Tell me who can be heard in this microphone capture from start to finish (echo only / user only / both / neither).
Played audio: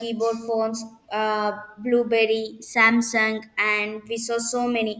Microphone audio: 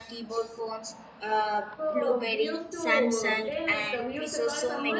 both